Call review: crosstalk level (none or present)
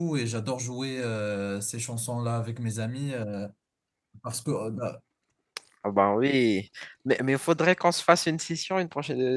none